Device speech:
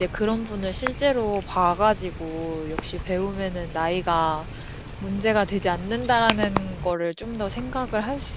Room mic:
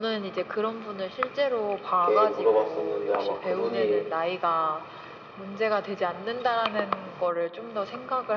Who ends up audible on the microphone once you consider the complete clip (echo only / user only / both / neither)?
both